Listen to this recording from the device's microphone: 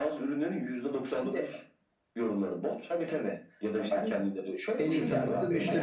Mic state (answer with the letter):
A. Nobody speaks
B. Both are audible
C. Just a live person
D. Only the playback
B